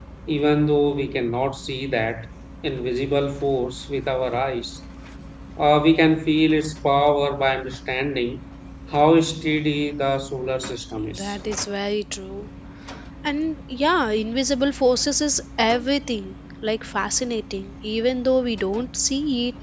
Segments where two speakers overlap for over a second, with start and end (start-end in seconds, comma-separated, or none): none